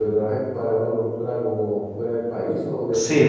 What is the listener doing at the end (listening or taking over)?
taking over